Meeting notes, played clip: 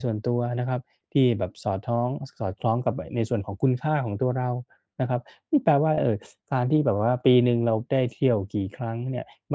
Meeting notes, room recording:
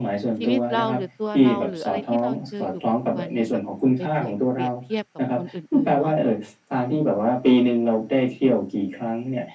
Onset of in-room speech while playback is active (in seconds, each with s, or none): 0.4 s